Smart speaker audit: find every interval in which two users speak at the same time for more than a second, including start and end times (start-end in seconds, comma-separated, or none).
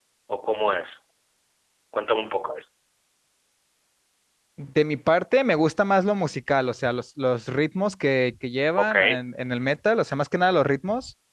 none